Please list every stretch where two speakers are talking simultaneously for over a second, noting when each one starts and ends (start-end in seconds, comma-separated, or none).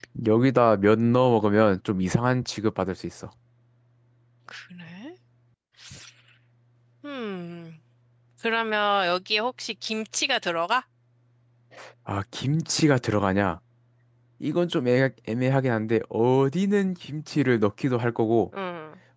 none